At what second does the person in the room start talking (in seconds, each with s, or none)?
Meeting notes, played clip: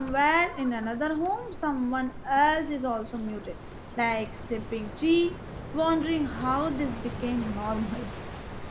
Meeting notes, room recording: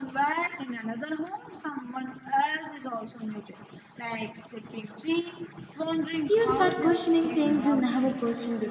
6.3 s